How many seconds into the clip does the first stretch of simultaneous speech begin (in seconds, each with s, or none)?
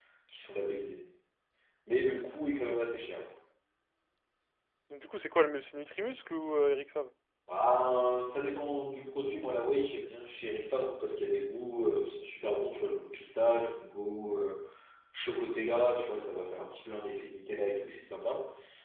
none